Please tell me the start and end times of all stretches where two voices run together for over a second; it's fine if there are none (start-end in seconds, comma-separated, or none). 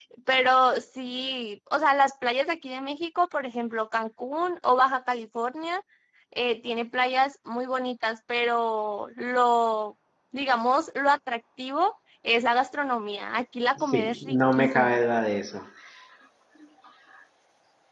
13.8-15.0